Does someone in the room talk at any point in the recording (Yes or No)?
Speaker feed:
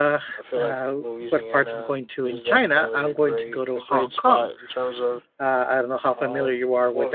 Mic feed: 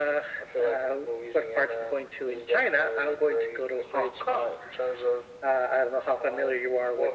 No